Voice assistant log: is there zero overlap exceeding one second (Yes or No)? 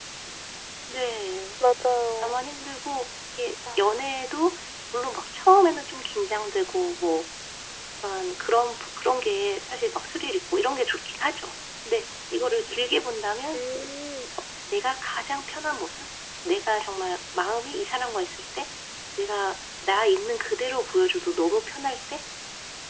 Yes